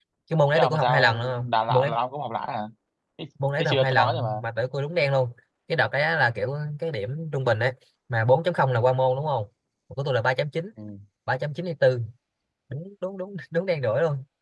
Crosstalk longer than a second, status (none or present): present